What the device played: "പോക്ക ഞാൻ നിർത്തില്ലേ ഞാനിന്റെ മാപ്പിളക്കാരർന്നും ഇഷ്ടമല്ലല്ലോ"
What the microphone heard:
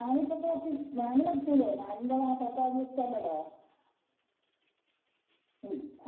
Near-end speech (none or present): none